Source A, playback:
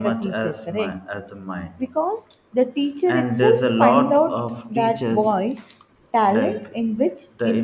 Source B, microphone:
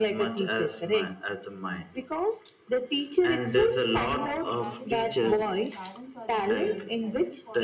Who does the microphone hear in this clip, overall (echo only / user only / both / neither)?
both